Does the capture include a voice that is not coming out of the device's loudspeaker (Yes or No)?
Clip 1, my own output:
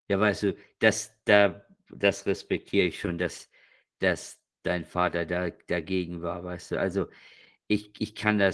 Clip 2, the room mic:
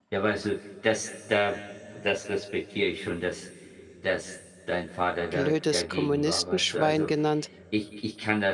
Yes